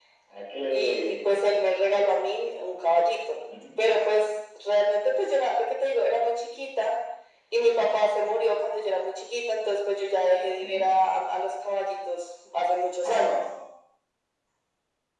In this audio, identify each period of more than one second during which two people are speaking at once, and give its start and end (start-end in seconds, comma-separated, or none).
none